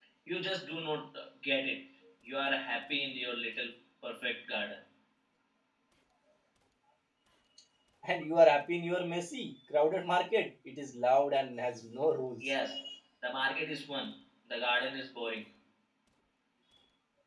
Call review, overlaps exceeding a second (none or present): none